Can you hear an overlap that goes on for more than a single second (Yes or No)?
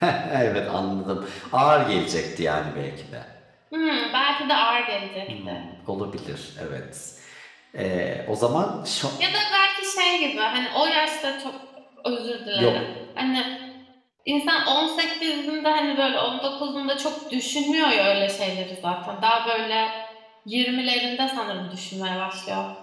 No